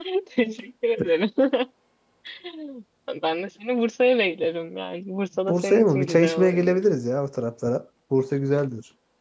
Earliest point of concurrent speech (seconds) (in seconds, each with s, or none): 5.5 s